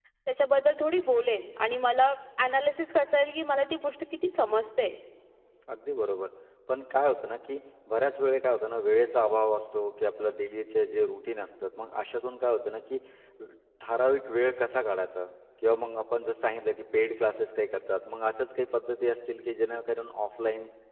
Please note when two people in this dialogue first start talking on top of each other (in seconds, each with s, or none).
none